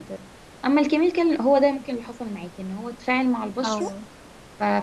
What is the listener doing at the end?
listening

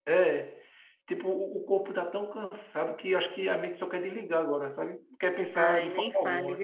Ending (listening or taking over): taking over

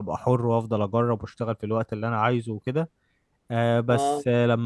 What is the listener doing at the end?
listening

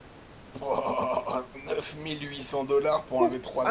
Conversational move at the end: taking over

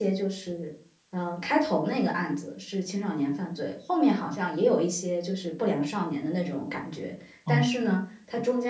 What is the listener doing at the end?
listening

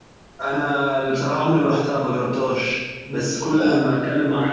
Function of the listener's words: listening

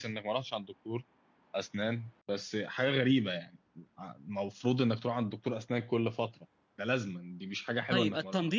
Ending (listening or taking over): taking over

